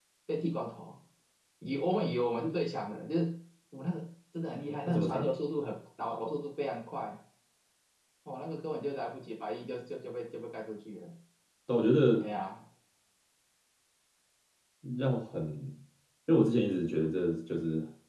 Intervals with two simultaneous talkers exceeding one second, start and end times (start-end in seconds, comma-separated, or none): none